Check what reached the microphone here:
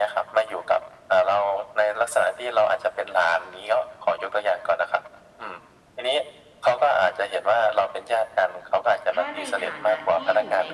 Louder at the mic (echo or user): echo